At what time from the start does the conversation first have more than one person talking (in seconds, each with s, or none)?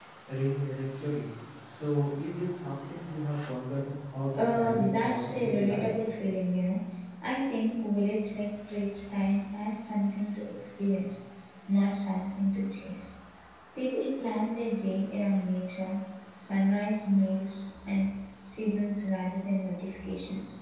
4.3 s